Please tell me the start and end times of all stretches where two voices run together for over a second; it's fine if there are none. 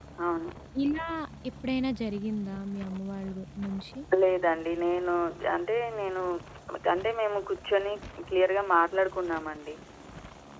none

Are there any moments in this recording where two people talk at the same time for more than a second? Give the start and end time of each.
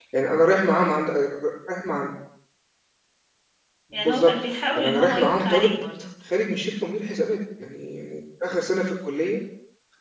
3.9-5.8

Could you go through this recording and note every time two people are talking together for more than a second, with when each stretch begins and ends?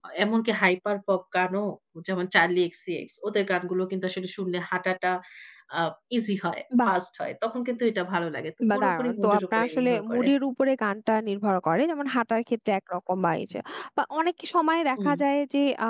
8.7-10.3

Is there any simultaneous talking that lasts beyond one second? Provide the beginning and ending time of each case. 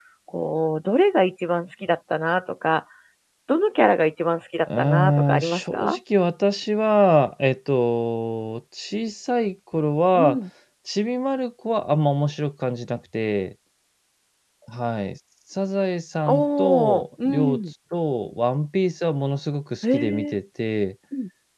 4.8-6.0, 16.3-17.6

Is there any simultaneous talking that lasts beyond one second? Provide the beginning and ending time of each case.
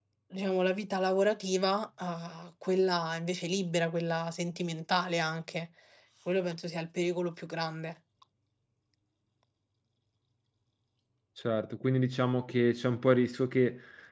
none

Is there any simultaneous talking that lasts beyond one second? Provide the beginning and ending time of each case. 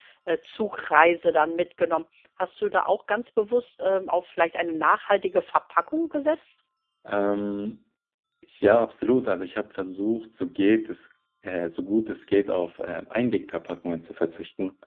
none

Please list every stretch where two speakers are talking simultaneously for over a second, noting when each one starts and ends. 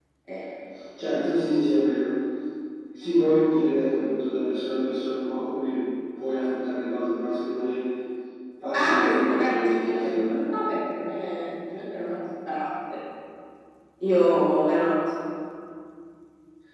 8.8-10.4

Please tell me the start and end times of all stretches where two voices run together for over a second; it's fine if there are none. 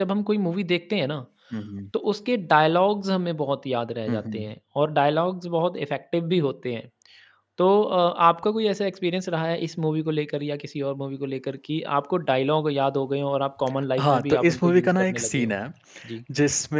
14.0-15.6

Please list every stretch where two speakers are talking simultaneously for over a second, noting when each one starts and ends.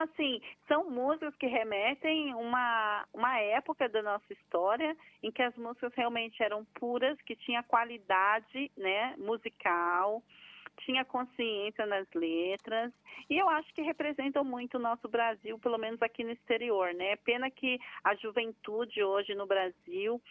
none

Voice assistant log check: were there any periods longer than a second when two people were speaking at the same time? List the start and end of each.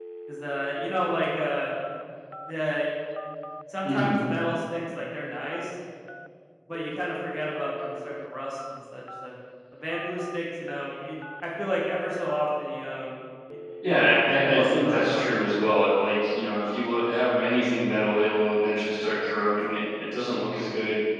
13.9-15.4

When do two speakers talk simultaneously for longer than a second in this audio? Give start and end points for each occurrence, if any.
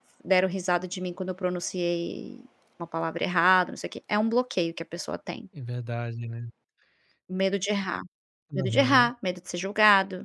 none

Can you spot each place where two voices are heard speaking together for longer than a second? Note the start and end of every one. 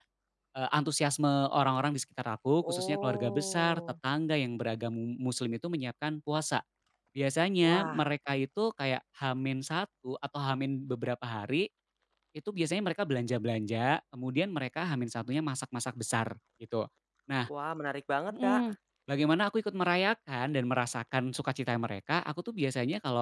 2.6-3.8

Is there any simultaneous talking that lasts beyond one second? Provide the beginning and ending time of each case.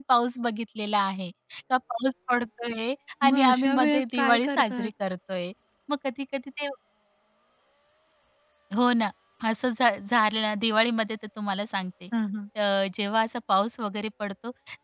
3.2-4.9

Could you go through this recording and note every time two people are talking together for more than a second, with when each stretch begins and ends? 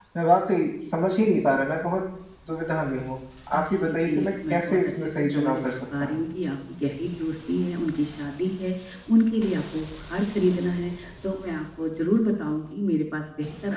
3.5-5.5

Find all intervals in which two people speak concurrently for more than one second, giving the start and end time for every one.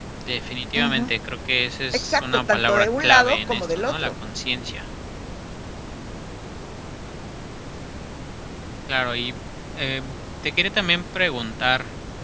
1.9-4.1

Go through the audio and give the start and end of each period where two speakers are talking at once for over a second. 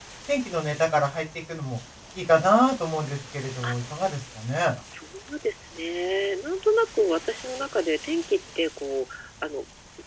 none

